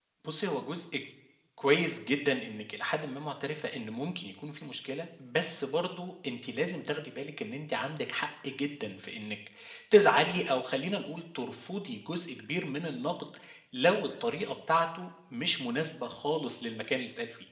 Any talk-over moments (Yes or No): No